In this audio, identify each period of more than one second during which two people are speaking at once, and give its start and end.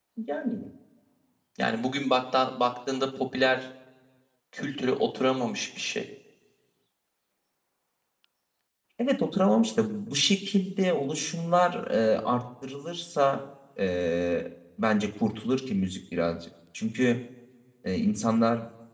none

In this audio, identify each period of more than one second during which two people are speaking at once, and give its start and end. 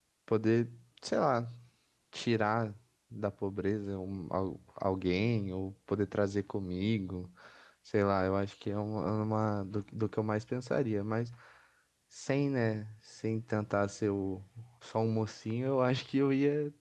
none

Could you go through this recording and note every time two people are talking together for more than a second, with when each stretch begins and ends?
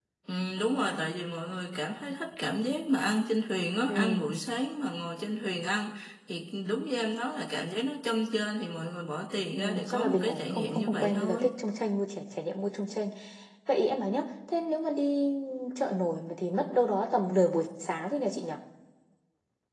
9.5-11.5

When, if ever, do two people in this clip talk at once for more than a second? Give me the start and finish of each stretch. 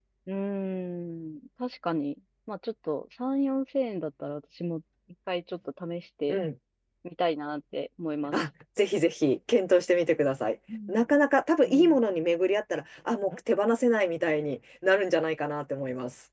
none

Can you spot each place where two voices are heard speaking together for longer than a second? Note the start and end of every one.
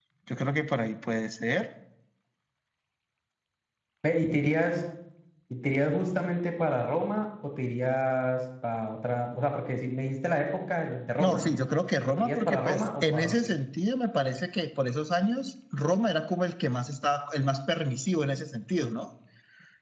12.0-13.4

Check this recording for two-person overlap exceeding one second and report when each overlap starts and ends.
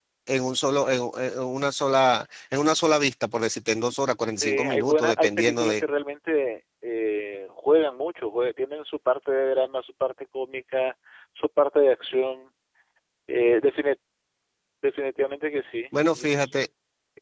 4.4-5.8

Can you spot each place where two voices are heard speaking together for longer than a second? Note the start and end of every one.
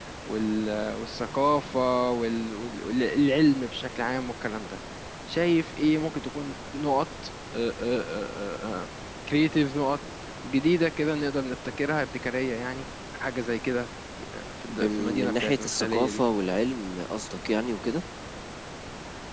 14.7-16.2

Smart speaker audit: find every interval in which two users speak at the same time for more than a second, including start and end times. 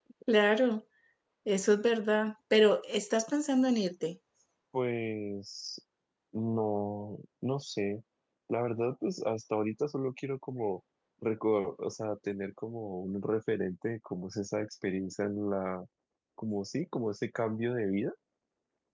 none

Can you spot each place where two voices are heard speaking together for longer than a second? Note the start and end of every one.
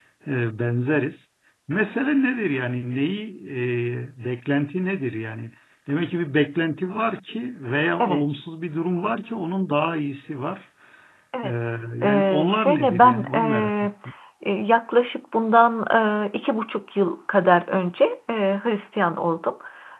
12.0-13.9

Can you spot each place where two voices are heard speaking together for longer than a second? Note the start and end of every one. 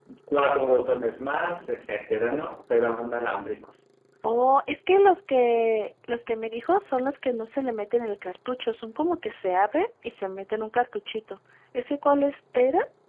none

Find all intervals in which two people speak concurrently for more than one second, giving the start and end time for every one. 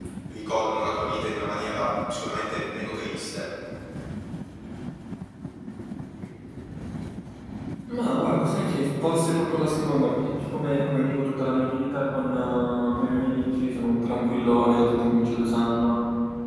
none

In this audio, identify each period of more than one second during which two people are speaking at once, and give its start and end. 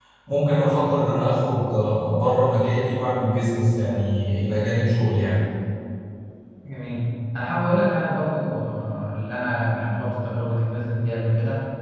none

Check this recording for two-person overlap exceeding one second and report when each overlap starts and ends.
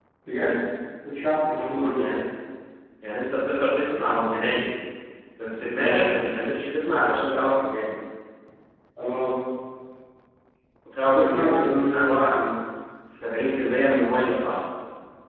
11.0-12.2

